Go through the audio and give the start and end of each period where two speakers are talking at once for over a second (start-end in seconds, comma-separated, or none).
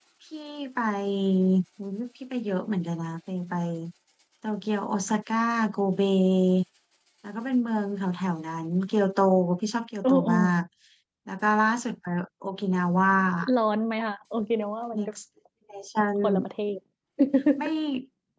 none